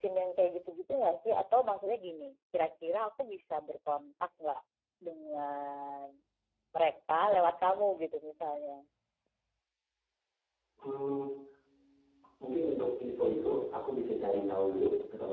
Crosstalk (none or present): none